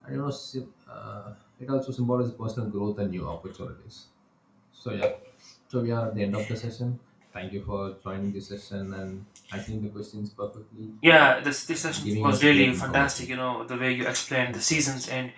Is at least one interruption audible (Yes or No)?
Yes